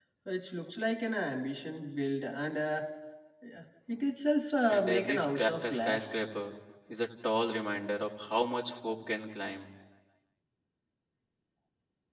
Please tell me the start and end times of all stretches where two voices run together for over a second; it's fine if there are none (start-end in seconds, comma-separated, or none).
4.7-6.2